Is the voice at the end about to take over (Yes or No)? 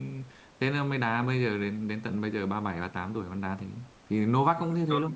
No